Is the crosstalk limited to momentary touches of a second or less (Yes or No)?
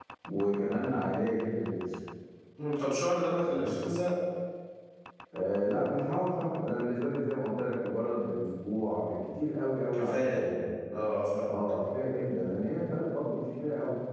Yes